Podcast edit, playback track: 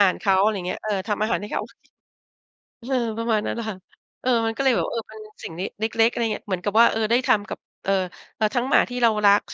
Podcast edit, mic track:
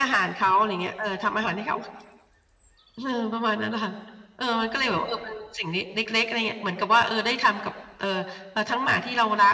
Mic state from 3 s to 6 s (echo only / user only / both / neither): echo only